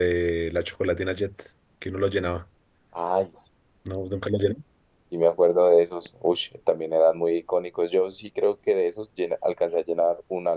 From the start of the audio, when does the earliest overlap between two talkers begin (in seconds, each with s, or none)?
none